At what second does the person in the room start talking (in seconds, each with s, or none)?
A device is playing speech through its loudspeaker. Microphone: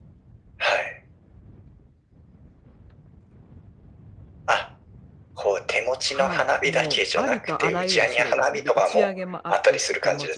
6.1 s